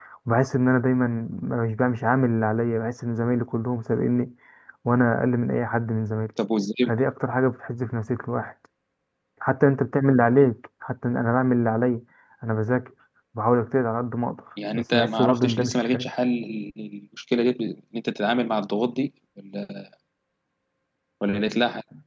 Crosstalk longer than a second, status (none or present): present